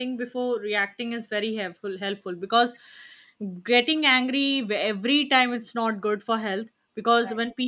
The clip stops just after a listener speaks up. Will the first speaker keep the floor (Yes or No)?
Yes